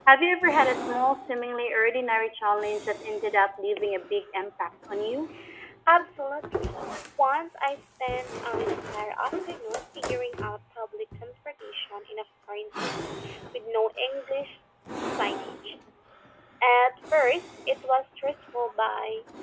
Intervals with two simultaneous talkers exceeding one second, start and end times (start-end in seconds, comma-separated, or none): none